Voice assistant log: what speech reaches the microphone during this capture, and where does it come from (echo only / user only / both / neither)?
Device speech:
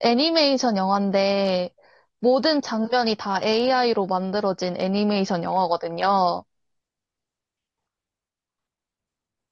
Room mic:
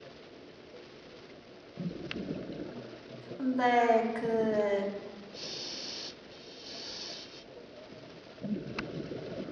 user only